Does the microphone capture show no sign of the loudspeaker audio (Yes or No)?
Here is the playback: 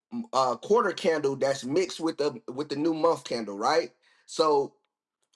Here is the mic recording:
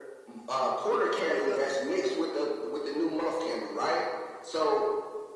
No